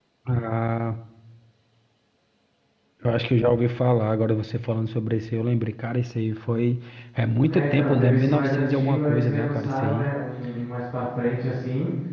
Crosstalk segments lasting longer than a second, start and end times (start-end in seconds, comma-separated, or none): 7.5-10.1